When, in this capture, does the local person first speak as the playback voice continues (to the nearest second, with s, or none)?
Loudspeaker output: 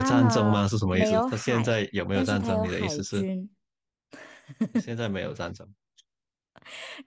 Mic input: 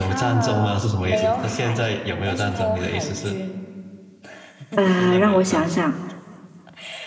5 s